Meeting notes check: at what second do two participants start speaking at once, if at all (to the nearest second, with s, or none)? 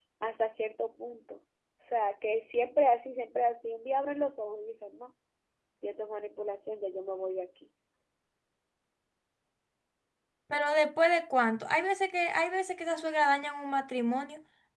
none